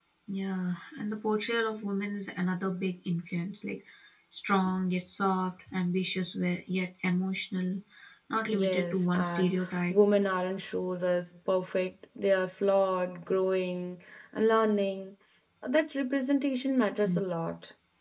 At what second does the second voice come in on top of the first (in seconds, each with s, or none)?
8.5 s